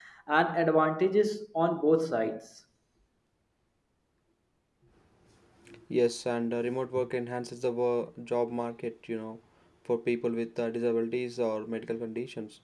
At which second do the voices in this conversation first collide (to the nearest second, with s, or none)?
none